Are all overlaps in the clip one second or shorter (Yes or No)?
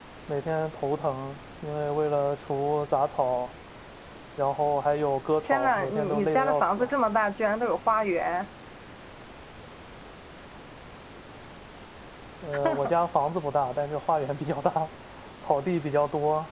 No